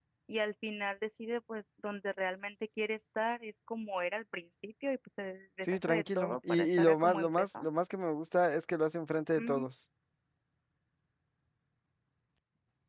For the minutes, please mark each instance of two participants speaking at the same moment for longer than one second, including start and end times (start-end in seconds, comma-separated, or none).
5.6-7.7